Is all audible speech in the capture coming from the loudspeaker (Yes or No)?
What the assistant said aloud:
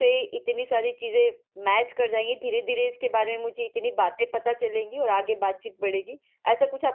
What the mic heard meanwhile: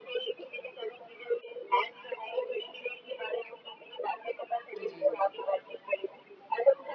No